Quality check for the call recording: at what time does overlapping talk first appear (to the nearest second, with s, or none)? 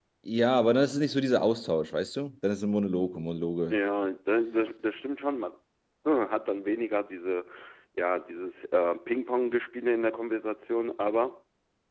none